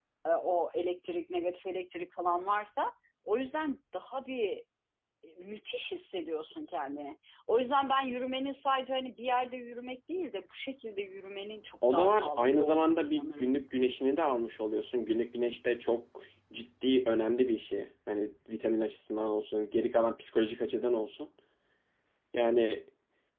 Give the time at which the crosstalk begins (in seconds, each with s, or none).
11.8 s